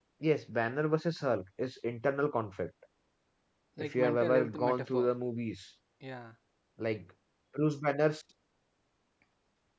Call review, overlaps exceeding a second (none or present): present